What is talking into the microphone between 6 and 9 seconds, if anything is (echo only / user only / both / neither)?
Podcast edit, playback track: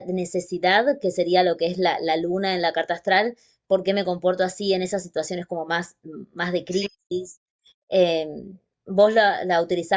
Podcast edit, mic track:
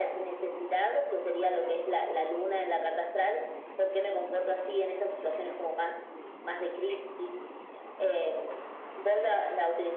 echo only